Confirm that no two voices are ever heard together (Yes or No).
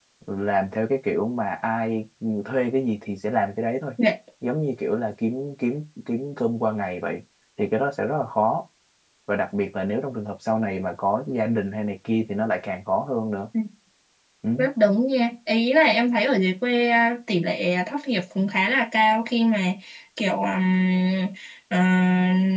Yes